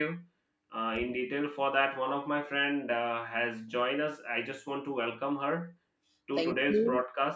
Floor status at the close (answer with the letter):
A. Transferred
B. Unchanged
B